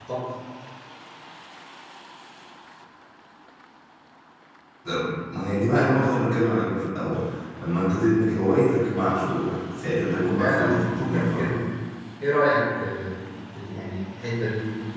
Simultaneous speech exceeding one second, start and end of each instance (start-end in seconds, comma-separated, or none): 10.1-11.3